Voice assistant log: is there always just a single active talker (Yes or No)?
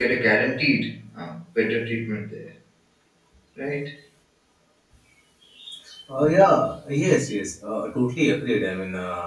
Yes